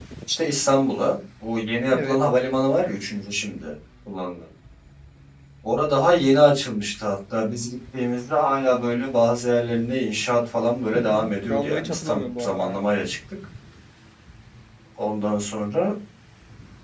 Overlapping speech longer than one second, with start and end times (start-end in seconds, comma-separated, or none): 10.9-12.8